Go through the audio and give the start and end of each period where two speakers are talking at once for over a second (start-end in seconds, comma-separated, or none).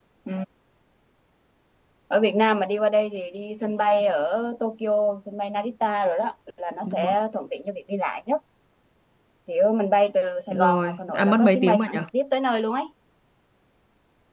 10.5-12.0